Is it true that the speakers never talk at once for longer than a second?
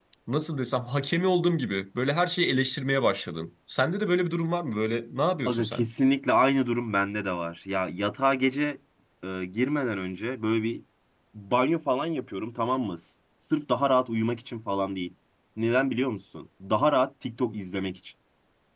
Yes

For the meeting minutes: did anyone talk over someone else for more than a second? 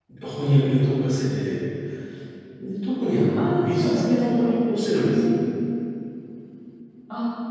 Yes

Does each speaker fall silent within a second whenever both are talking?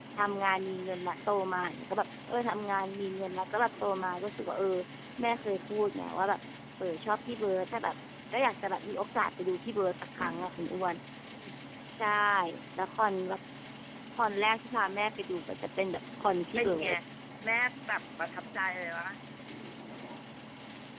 Yes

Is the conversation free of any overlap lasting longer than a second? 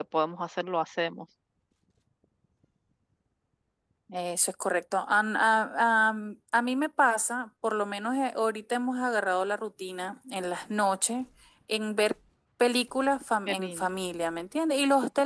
Yes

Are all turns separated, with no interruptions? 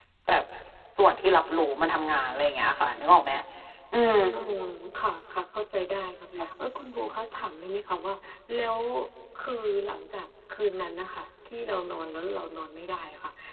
Yes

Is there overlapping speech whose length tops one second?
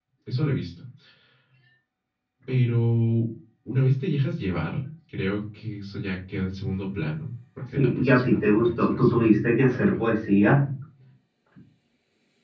Yes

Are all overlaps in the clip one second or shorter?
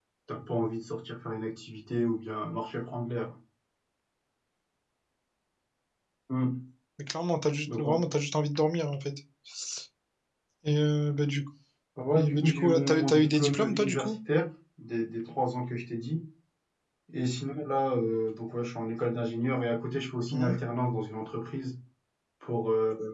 No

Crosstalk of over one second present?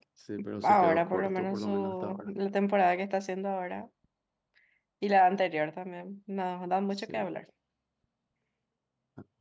Yes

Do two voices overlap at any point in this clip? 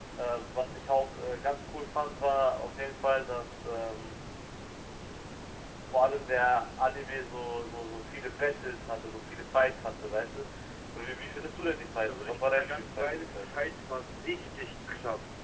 Yes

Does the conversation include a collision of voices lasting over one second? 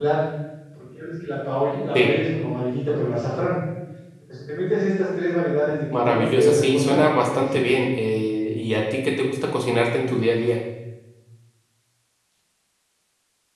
Yes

